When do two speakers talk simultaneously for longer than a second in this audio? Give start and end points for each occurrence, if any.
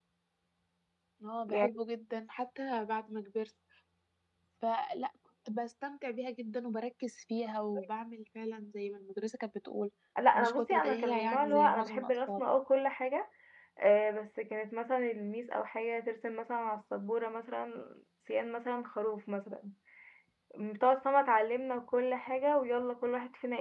10.3-12.4

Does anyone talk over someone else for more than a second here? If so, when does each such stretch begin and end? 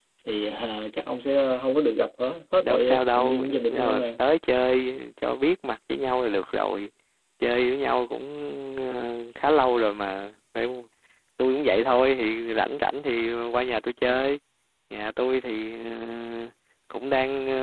2.6-4.1

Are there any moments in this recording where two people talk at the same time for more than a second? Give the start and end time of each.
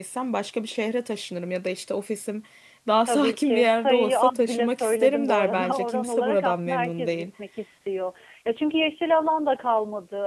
3.1-7.2

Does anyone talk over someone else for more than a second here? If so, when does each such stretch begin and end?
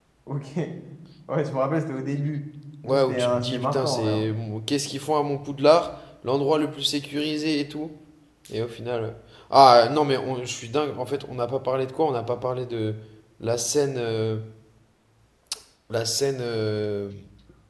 2.8-4.2

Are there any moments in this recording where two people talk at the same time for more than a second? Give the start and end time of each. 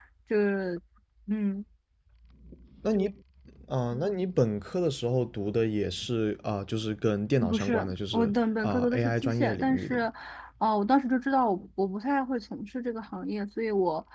7.4-10.0

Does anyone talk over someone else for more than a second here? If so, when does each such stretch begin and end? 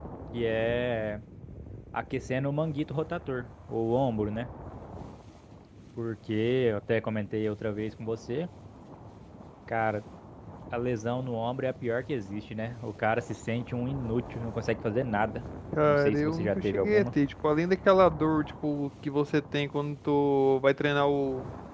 15.8-17.1

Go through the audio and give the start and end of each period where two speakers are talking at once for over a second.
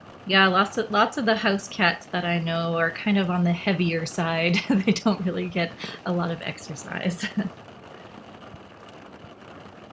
none

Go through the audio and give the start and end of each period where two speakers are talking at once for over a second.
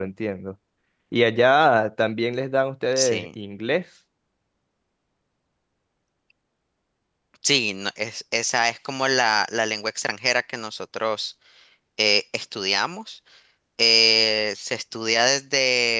none

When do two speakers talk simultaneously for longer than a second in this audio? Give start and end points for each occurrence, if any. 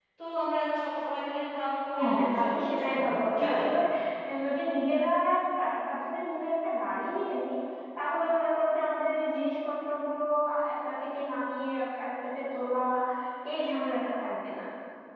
2.0-3.7

